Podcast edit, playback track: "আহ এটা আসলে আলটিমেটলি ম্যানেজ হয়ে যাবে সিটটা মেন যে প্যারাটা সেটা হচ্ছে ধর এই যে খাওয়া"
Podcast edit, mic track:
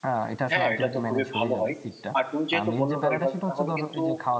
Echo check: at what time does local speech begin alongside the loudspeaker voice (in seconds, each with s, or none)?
0.5 s